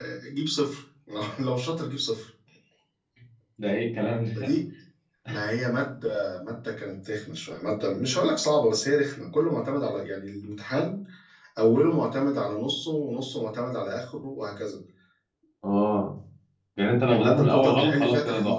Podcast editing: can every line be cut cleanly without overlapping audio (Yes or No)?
No